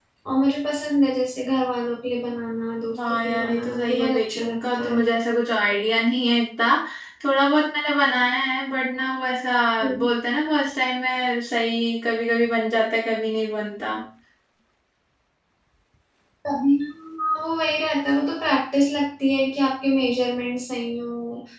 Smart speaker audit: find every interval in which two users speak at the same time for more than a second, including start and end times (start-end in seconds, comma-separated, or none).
3.1-5.0